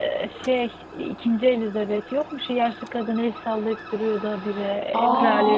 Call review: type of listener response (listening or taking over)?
taking over